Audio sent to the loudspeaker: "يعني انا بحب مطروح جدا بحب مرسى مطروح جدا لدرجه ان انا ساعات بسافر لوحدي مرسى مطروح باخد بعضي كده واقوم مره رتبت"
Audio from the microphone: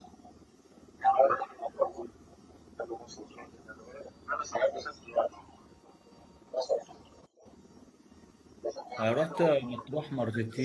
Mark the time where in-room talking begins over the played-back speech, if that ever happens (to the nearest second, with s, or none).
9 s